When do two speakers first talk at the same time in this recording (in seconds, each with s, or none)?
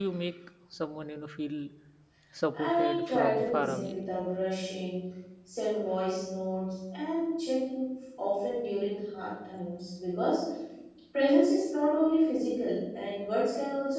2.5 s